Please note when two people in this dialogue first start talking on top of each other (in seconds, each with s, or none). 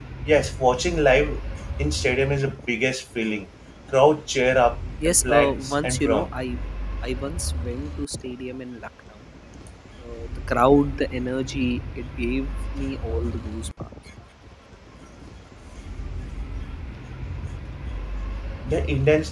5.0 s